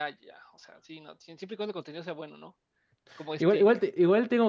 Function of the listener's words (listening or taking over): taking over